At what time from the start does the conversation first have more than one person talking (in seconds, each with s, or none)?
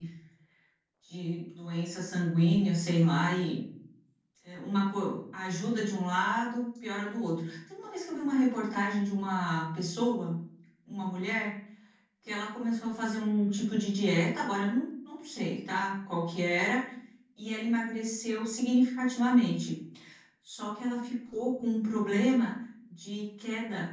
none